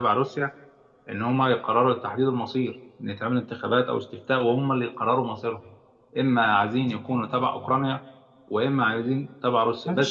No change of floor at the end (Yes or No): No